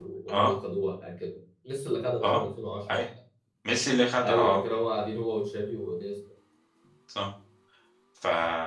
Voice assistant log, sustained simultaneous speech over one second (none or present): none